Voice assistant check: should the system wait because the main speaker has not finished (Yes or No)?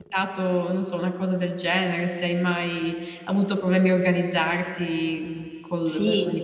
No